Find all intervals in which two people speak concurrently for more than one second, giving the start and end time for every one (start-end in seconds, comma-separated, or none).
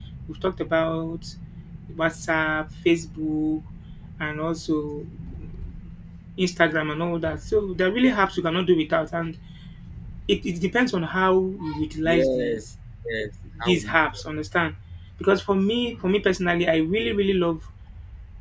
none